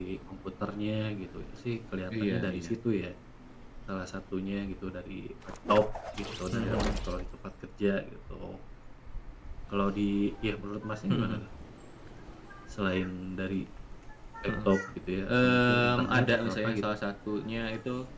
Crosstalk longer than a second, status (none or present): present